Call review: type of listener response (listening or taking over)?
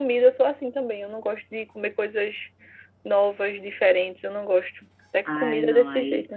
taking over